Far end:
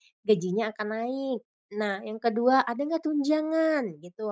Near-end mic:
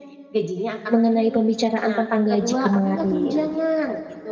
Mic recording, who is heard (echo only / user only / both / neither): both